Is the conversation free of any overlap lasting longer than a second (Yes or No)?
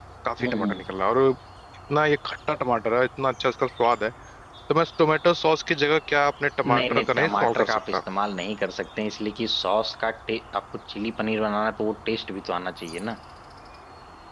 No